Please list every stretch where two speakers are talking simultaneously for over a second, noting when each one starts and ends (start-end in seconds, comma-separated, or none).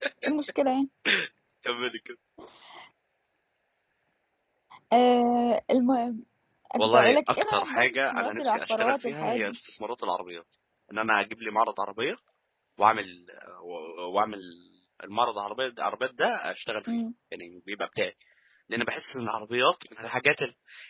6.8-9.6